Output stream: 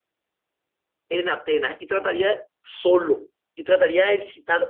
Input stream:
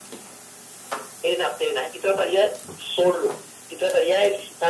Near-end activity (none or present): none